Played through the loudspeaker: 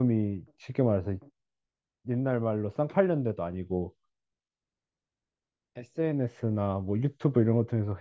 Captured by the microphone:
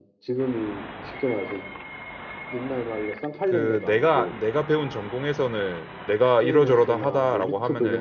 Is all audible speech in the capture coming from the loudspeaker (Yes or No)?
No